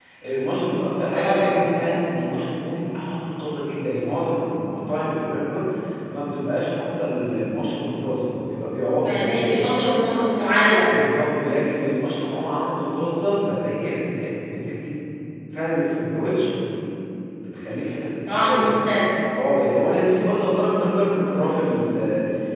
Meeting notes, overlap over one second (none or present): none